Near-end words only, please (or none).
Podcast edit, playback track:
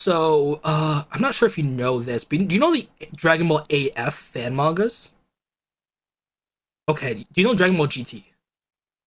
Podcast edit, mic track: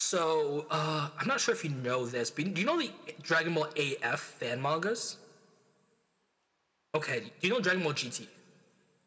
none